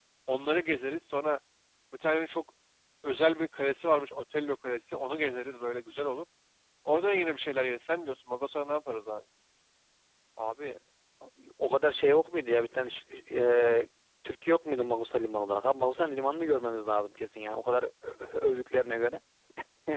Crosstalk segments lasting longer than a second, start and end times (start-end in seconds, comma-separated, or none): none